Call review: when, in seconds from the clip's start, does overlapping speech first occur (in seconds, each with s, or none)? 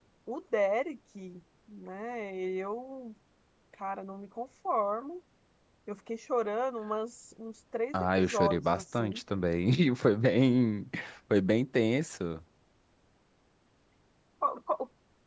7.9 s